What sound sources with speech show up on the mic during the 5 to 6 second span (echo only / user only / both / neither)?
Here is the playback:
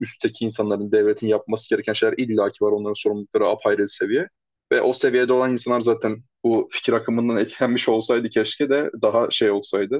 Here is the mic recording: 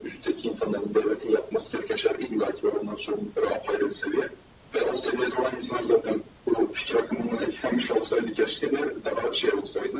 echo only